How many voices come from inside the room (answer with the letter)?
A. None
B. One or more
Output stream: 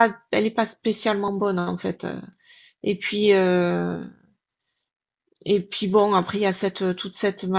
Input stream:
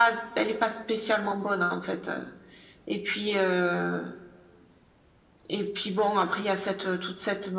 A